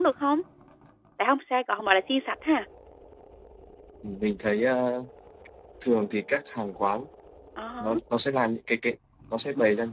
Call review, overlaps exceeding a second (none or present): none